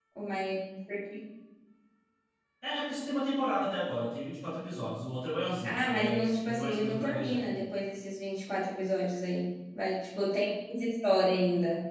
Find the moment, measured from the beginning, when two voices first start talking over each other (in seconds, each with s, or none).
5.6 s